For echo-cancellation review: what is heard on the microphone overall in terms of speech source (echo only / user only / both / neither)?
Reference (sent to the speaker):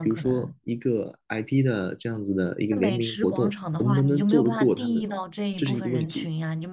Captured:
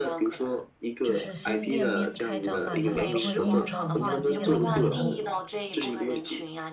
both